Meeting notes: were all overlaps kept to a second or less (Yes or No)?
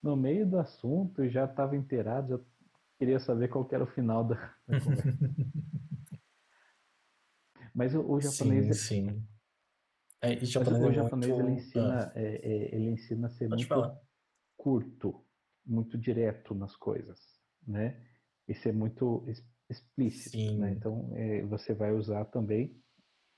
No